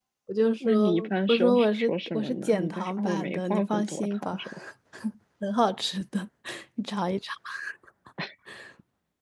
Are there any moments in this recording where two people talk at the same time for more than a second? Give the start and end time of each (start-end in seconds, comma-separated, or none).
0.6-4.4